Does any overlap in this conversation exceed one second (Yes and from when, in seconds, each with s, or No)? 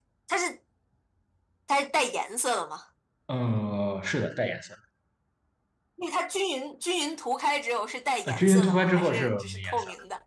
Yes, from 8.3 s